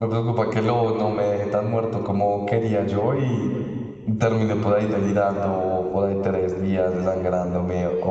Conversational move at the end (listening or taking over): taking over